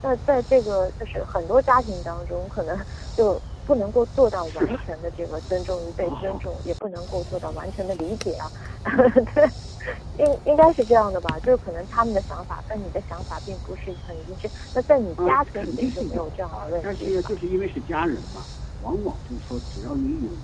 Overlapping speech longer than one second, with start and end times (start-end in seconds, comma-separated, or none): 15.2-17.3